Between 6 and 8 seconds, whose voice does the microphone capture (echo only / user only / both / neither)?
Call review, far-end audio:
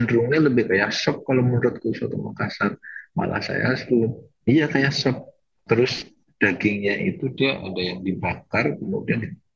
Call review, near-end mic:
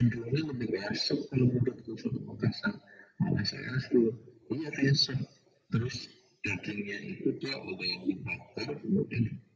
echo only